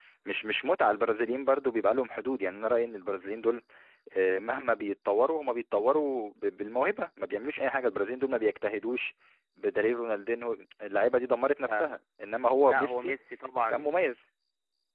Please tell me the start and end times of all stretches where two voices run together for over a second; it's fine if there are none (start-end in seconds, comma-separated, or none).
none